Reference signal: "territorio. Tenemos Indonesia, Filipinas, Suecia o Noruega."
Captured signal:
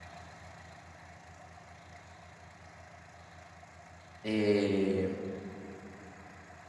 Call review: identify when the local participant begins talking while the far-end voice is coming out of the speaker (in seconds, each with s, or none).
4.2 s